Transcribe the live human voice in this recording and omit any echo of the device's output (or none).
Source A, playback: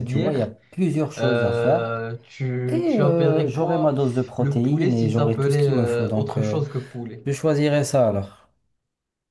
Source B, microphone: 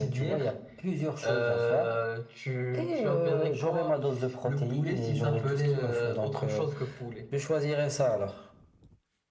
none